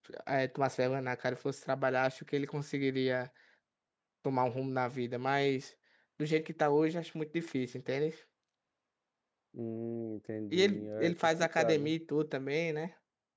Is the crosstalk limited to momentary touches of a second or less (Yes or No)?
No